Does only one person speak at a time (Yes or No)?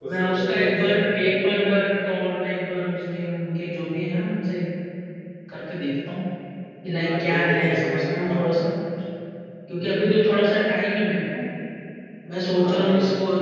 No